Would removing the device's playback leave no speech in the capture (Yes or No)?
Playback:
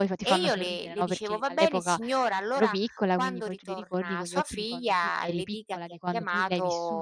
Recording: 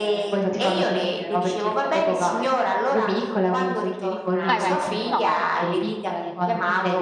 No